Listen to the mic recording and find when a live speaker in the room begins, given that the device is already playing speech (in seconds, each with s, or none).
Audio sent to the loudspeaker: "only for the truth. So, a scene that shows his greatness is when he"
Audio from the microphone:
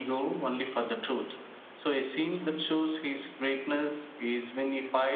none